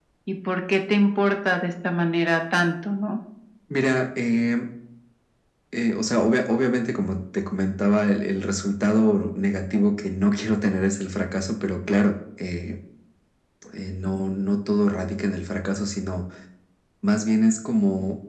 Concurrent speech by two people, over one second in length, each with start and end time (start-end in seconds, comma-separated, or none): none